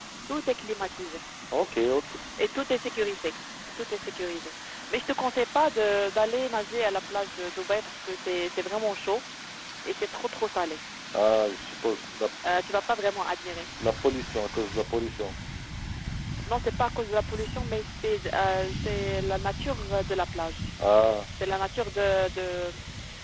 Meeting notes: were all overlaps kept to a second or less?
Yes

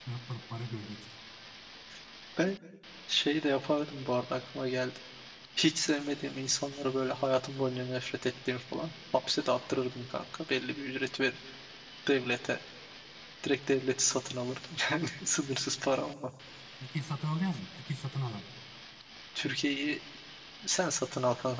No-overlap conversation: Yes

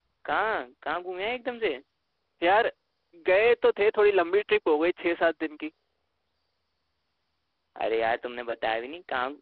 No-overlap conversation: Yes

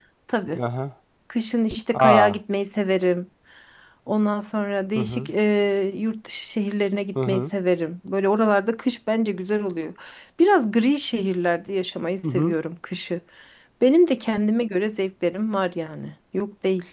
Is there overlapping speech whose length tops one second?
No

